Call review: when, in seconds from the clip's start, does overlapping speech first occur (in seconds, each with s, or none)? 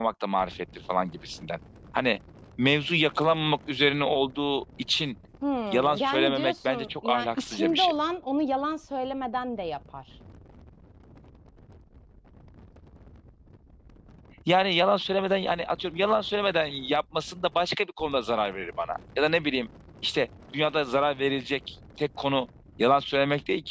5.7 s